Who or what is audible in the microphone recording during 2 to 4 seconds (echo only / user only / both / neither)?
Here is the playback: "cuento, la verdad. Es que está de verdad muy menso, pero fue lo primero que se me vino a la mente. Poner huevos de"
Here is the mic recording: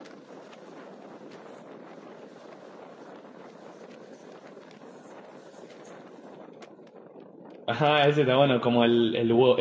neither